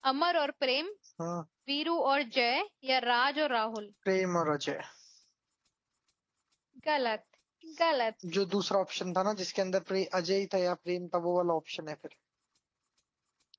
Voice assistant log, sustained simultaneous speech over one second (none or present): none